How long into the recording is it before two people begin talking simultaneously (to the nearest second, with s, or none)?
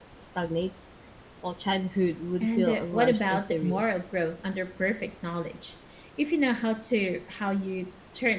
2 s